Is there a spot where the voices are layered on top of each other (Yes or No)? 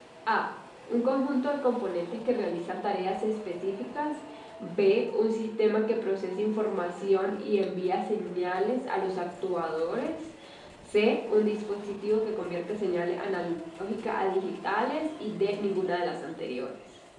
No